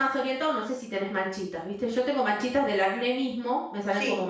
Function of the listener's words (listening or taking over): taking over